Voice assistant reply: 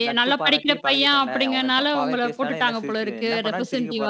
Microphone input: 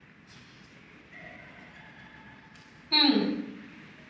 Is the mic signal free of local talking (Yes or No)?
No